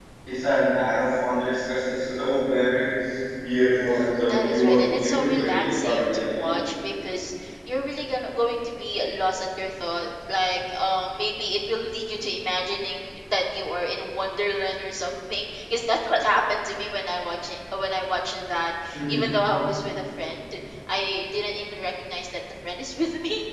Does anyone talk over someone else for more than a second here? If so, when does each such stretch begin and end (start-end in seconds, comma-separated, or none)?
4.3-6.6